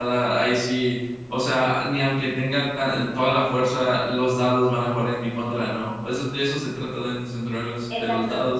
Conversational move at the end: taking over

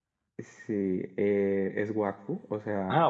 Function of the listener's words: listening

